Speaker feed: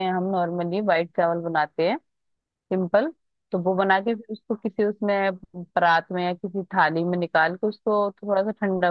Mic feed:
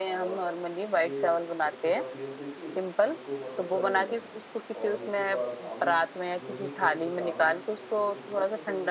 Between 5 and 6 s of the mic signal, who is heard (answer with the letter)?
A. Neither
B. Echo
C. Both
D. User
C